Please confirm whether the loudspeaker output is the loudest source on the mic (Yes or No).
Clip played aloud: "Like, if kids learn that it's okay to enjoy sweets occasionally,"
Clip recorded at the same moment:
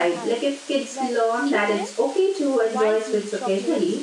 Yes